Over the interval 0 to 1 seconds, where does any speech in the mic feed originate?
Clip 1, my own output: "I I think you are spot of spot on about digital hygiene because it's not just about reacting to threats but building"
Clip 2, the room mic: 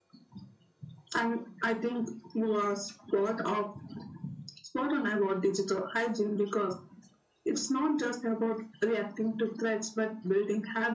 neither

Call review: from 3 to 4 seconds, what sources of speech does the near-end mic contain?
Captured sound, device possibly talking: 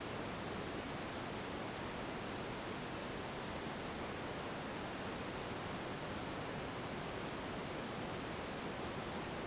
neither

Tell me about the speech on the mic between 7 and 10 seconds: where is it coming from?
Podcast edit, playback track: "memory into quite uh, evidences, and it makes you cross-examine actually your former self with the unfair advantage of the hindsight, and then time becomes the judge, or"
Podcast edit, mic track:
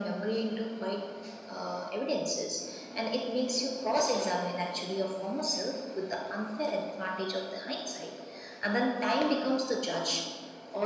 echo only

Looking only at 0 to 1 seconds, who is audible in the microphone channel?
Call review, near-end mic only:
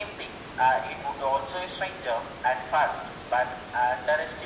echo only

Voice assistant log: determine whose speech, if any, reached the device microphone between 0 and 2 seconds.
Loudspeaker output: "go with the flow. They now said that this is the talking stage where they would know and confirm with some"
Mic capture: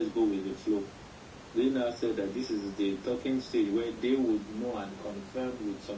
echo only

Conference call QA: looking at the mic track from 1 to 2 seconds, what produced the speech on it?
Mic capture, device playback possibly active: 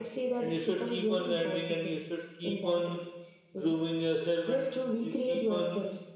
echo only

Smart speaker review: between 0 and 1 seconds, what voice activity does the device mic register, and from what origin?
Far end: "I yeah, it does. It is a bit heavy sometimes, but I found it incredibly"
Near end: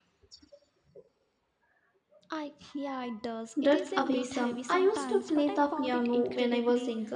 neither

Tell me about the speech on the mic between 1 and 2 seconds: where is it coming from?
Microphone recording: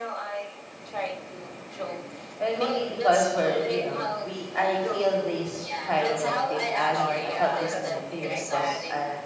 echo only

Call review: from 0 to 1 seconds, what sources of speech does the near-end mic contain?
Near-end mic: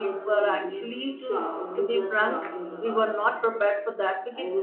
both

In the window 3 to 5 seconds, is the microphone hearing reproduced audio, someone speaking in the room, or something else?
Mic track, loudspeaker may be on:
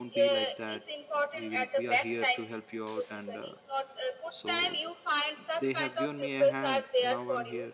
both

